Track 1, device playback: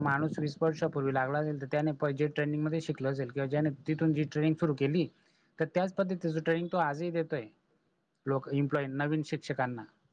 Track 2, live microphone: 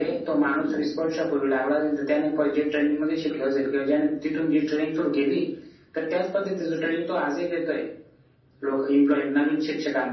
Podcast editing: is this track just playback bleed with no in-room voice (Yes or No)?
Yes